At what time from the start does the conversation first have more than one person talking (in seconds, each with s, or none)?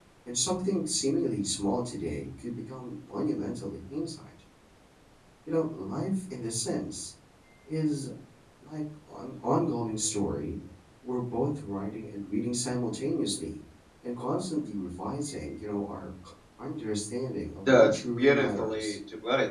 17.7 s